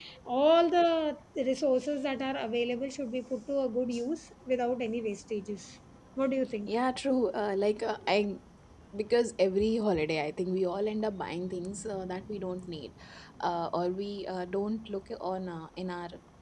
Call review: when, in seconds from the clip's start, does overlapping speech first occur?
none

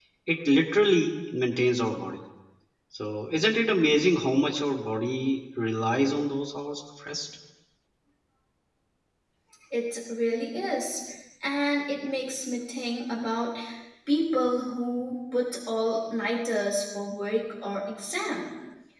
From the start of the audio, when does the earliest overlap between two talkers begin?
none

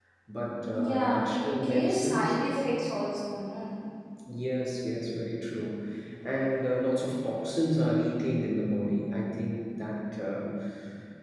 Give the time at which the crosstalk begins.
0.7 s

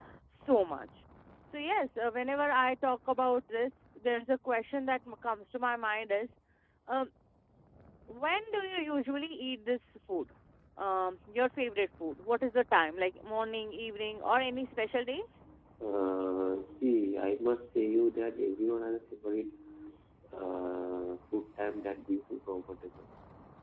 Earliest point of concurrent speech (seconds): none

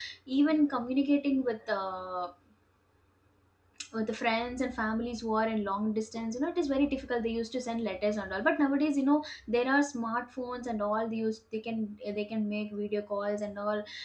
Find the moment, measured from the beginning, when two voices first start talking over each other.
none

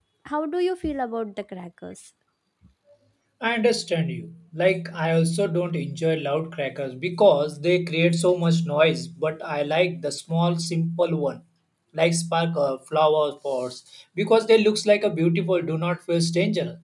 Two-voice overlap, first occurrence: none

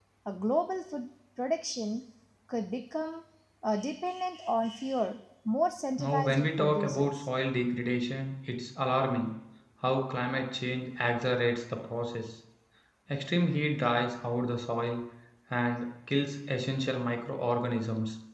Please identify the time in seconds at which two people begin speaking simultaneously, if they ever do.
6.0 s

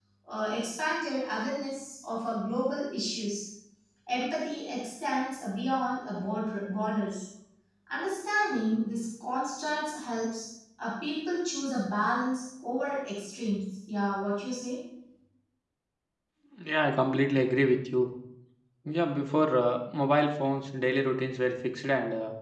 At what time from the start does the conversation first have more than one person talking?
none

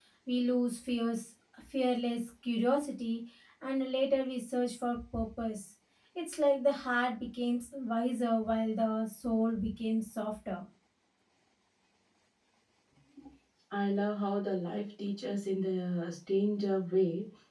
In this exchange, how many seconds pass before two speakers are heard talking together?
none

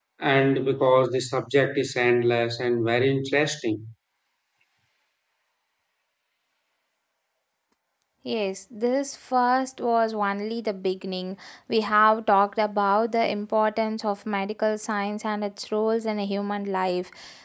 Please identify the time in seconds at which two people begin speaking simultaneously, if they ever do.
none

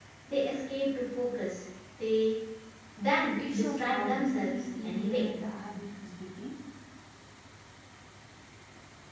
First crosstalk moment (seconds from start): 3.5 s

